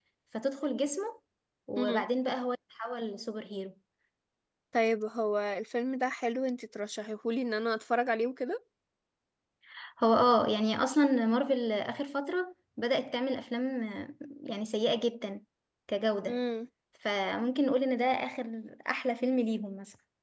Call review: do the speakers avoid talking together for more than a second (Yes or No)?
Yes